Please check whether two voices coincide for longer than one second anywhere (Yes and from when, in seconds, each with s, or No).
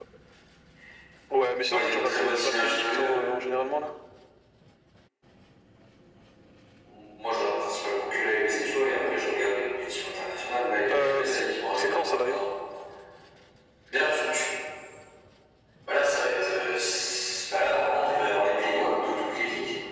Yes, from 1.7 s